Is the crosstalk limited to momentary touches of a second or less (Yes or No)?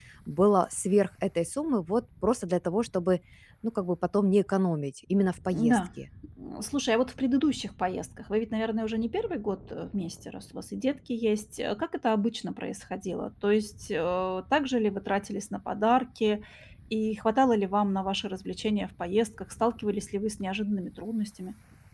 Yes